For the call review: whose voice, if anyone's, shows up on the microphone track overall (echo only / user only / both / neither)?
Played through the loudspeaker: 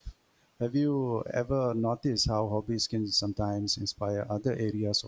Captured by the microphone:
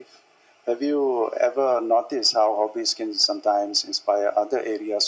echo only